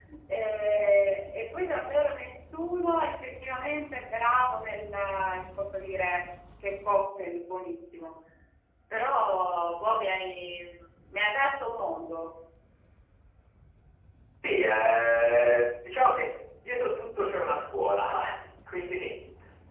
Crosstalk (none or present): none